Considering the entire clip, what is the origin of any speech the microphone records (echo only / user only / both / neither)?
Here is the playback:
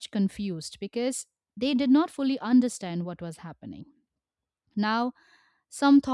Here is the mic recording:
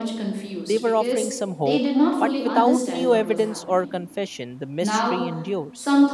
both